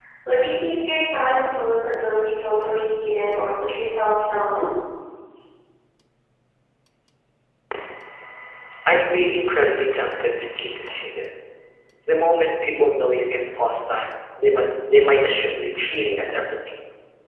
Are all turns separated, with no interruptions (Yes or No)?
Yes